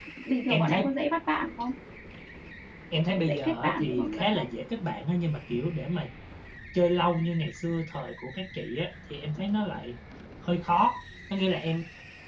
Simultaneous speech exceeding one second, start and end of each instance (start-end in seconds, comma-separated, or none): 3.1-4.5